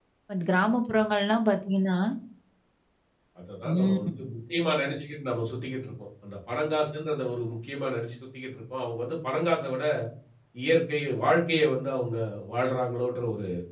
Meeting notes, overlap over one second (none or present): none